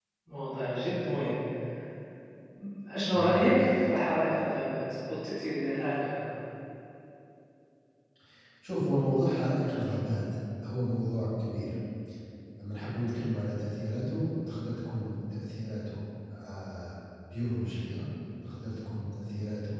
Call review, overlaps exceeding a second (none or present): none